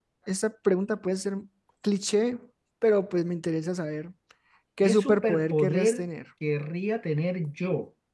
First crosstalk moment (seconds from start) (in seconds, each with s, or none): 4.8 s